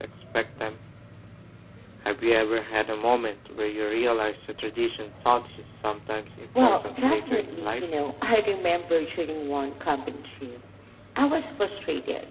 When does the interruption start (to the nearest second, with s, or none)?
7 s